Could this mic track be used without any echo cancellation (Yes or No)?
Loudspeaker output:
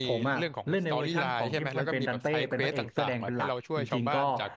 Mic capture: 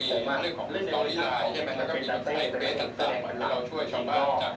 No